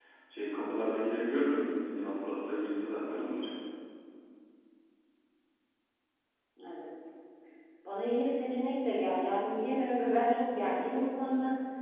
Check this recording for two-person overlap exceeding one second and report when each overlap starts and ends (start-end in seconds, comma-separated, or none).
none